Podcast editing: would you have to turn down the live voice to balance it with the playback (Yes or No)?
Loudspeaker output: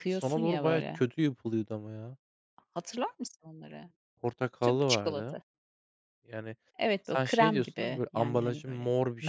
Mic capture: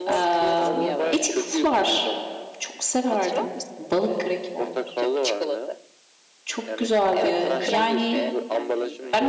Yes